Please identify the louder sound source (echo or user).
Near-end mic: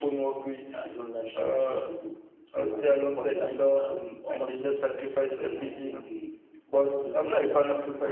user